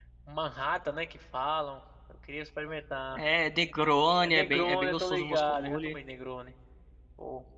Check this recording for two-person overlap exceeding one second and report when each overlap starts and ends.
4.2-6.0

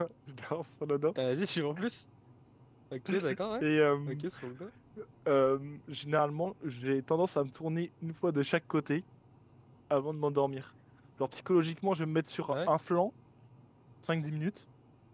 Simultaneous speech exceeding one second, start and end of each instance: none

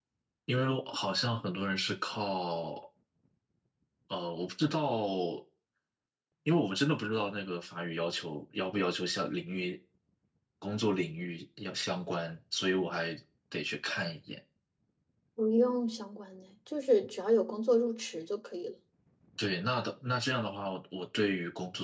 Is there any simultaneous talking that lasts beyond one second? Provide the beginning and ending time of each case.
none

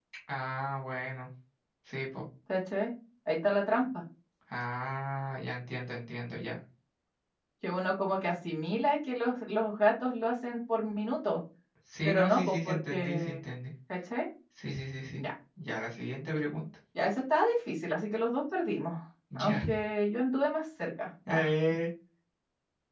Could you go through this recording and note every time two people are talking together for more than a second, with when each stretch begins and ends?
12.0-13.4

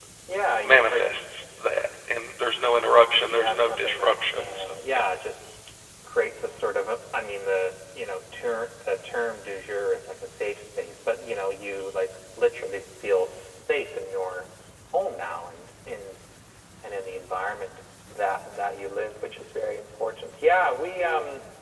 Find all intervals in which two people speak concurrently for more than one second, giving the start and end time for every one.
3.3-5.0

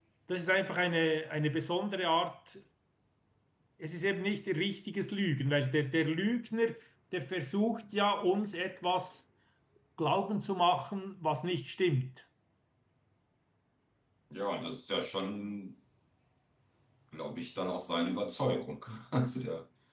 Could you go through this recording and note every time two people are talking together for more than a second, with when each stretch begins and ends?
none

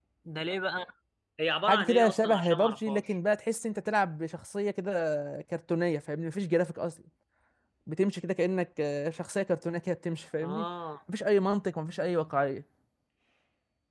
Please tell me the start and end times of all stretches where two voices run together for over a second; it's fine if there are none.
1.7-3.1

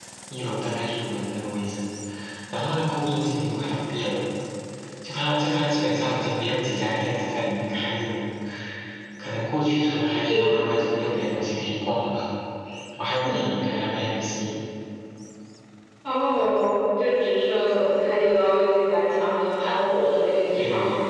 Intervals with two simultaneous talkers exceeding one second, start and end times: none

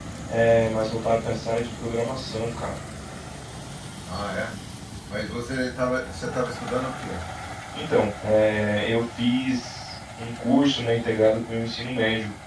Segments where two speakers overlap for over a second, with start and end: none

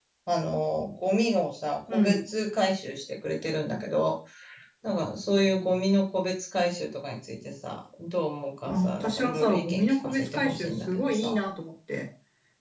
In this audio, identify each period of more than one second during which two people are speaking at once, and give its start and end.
8.6-11.3

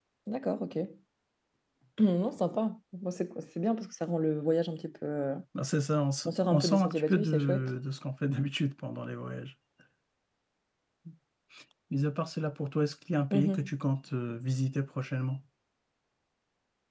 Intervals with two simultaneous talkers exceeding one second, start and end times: 6.2-7.7

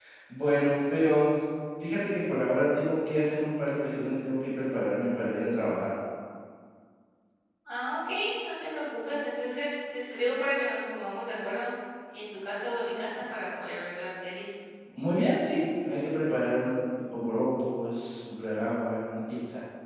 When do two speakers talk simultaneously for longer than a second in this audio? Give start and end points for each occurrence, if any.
none

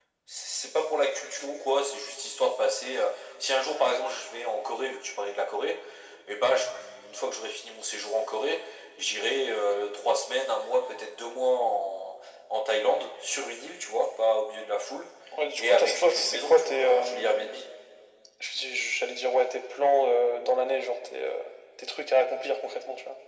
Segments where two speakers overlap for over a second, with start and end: 15.6-17.4

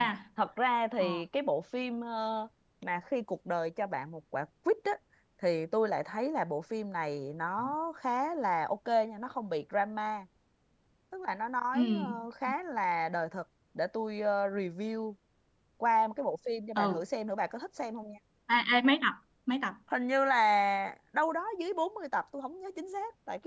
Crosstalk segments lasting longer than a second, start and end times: none

